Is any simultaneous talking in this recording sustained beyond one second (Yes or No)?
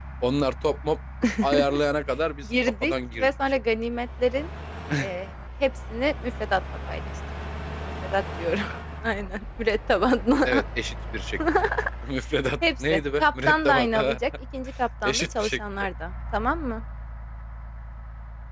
Yes